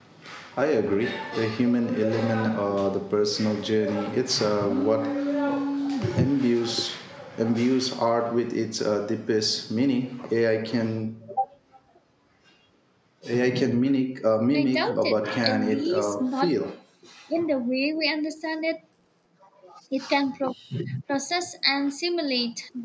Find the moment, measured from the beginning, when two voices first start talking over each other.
14.4 s

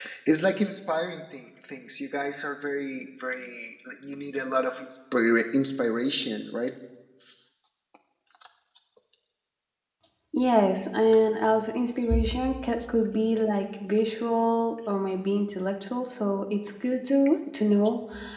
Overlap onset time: none

